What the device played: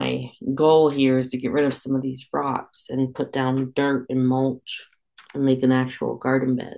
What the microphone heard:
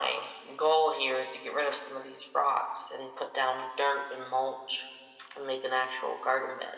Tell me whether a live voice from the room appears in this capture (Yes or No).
No